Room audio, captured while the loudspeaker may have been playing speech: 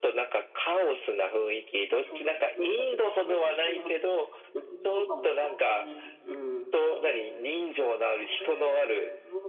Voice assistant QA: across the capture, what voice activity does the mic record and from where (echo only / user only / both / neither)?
both